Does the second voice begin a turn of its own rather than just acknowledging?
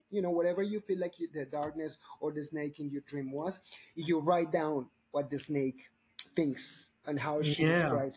No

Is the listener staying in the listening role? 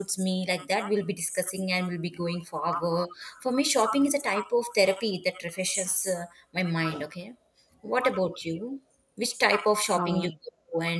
Yes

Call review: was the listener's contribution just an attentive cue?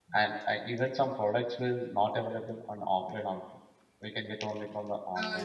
No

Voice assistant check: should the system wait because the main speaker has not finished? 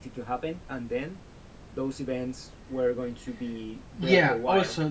No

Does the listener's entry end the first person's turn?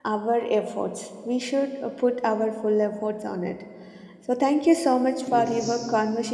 No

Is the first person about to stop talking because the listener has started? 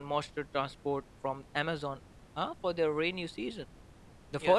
No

